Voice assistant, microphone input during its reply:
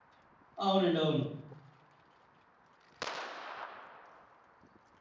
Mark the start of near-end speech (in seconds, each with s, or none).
0.6 s